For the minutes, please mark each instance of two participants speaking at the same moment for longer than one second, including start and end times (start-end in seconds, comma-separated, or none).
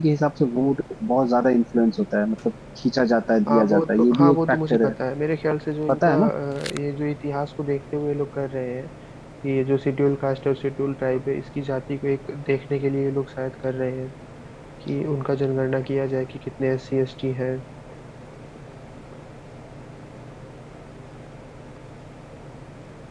3.5-4.9